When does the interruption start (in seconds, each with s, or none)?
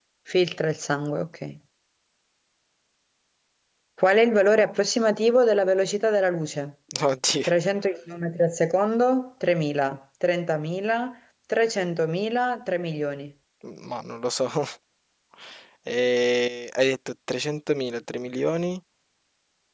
none